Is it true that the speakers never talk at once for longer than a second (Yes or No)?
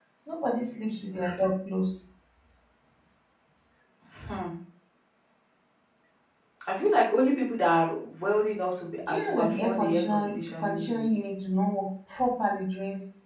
No